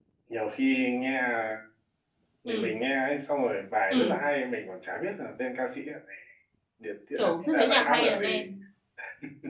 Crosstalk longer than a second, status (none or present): present